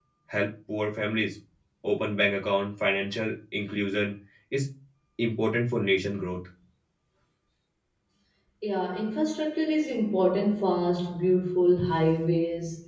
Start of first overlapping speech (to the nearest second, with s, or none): none